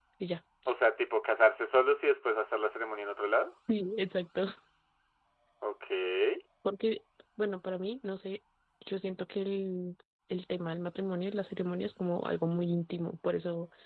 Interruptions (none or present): none